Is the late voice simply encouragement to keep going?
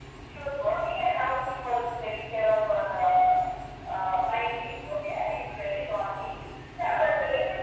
Yes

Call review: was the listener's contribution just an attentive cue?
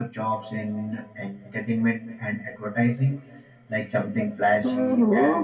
No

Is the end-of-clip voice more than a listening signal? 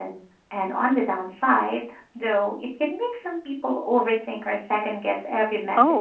Yes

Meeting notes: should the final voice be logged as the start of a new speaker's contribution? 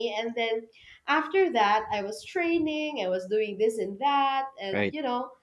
No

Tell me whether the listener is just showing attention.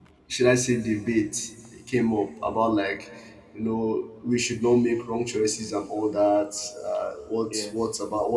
Yes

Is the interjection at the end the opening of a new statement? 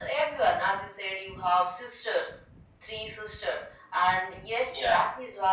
No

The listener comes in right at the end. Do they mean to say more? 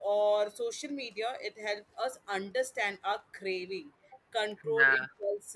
No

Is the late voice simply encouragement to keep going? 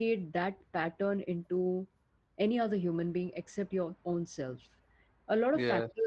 Yes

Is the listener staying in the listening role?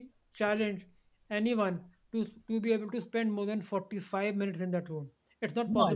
Yes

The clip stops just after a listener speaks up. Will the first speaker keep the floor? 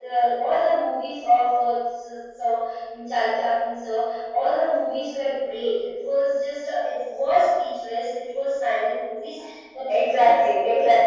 No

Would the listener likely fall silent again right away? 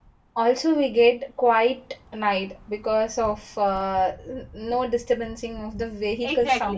No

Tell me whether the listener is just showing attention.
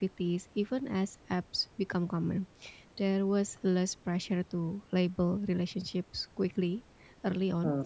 Yes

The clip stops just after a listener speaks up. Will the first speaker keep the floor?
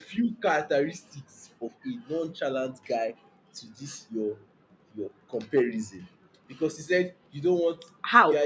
Yes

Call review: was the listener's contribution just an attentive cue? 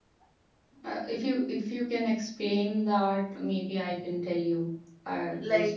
No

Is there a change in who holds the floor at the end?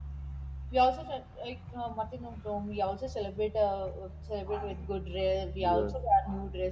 No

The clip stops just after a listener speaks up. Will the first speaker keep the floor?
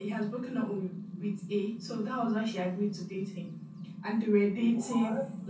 Yes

